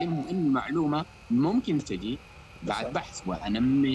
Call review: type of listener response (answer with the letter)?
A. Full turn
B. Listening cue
B